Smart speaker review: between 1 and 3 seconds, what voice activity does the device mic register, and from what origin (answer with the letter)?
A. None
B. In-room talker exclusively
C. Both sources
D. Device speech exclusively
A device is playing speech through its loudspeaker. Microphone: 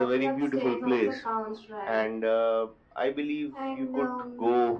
D